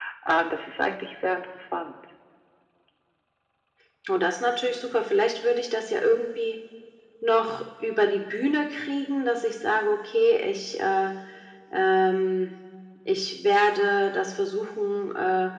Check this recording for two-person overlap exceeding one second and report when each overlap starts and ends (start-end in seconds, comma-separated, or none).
none